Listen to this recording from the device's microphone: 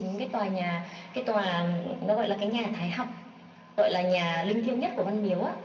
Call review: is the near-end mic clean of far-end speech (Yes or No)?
No